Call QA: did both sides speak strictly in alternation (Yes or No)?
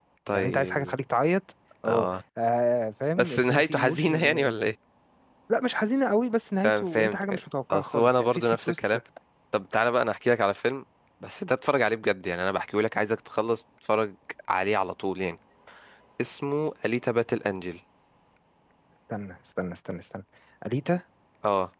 No